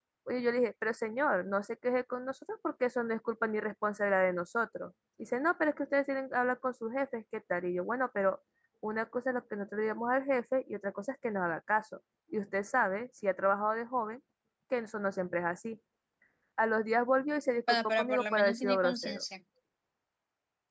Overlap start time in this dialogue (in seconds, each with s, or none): 17.7 s